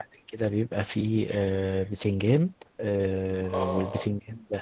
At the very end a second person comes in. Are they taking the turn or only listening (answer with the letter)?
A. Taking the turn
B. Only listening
B